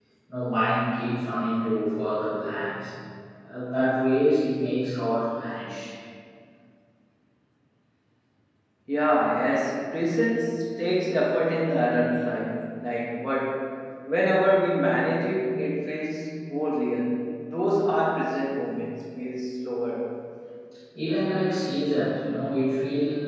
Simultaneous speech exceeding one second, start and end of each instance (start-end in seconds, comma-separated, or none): none